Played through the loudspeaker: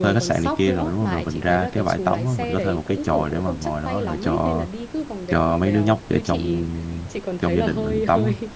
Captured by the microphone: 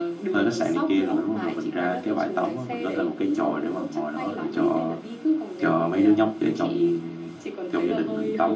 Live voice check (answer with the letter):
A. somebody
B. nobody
B